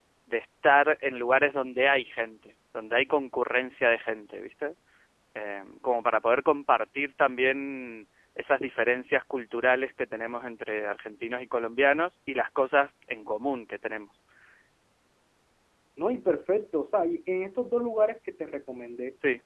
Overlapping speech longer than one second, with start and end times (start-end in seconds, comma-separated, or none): none